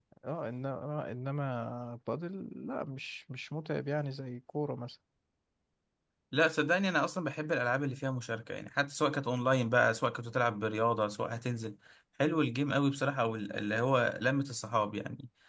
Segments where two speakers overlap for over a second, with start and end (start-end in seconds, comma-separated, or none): none